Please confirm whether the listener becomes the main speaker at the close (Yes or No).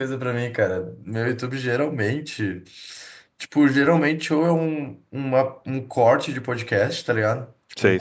No